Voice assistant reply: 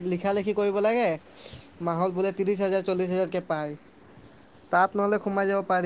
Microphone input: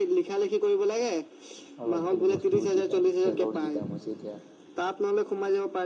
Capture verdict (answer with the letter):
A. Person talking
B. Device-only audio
A